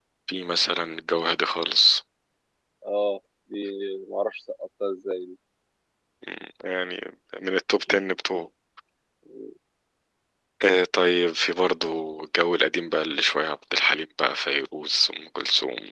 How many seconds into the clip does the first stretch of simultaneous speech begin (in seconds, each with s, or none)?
none